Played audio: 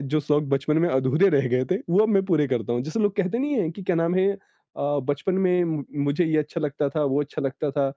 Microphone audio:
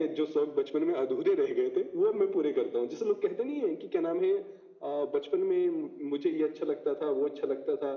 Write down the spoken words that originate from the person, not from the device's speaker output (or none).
none